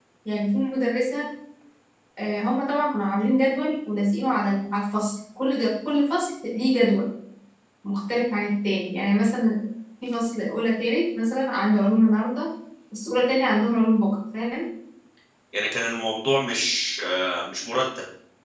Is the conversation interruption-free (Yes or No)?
Yes